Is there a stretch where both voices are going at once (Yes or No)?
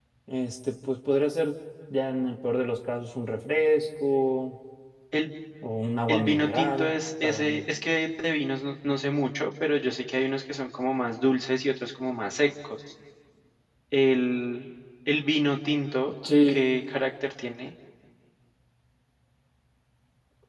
Yes